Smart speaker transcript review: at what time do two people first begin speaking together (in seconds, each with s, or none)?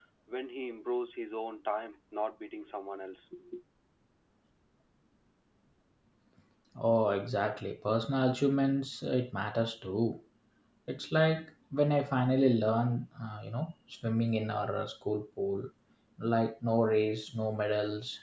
none